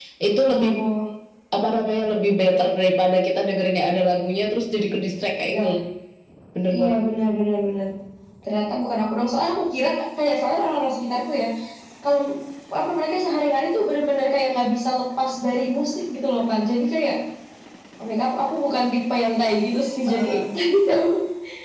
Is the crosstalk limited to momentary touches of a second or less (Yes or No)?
Yes